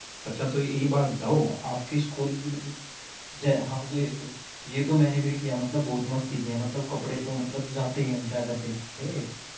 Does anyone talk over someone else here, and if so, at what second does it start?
none

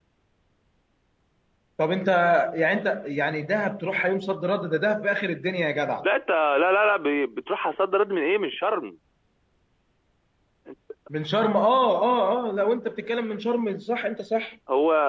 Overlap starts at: none

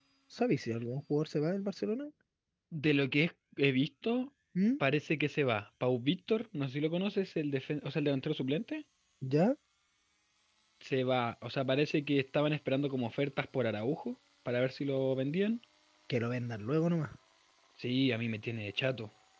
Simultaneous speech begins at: none

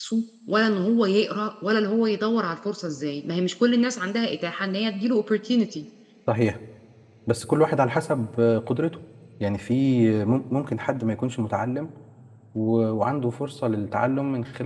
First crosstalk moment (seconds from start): none

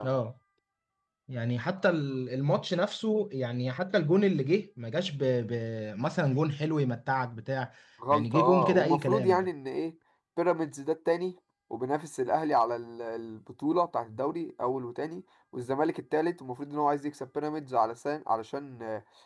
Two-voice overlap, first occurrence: 8.1 s

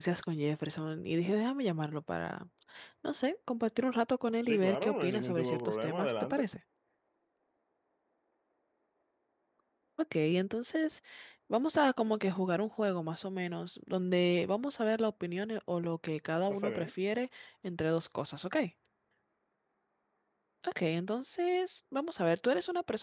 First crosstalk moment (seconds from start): 4.4 s

